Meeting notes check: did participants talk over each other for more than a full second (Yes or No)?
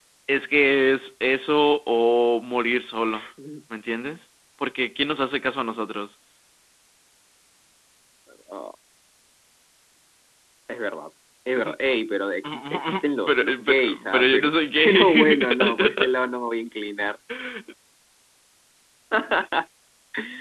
Yes